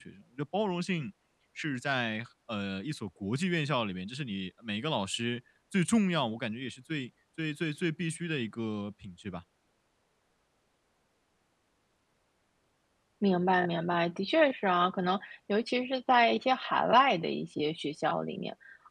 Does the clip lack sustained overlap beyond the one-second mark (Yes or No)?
Yes